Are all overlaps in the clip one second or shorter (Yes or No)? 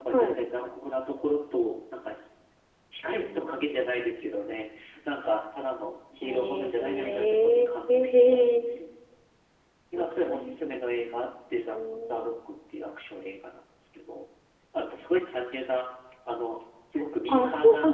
No